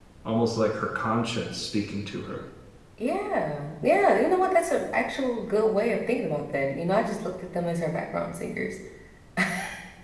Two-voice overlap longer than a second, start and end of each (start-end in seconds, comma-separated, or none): none